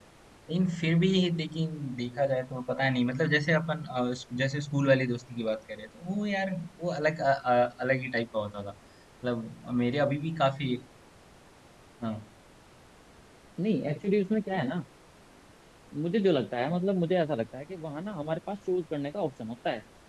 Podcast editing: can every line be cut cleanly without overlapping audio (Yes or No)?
Yes